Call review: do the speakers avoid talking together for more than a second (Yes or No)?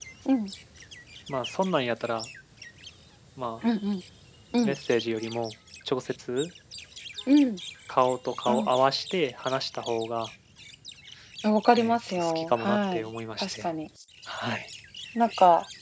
No